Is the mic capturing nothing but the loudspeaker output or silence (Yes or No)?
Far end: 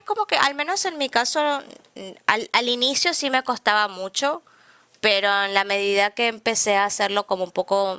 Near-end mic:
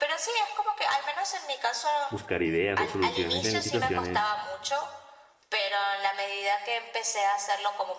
No